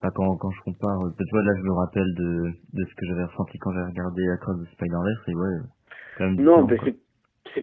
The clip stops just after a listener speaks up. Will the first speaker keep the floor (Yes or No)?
No